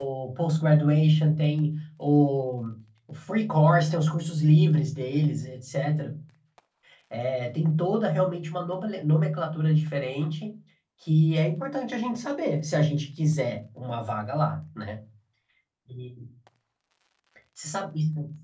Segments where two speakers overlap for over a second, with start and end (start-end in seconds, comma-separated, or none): none